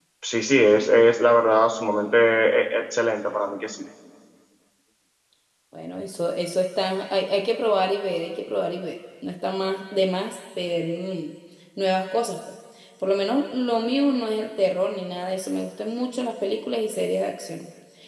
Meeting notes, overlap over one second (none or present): none